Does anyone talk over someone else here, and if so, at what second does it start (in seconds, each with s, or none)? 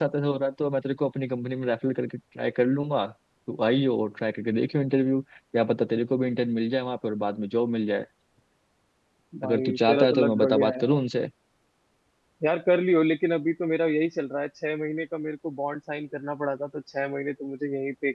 9.4 s